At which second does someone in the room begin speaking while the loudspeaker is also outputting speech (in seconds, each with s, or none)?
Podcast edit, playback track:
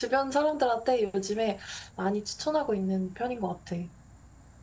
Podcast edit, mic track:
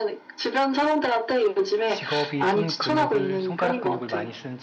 1.8 s